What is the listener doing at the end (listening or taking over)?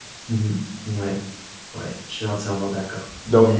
taking over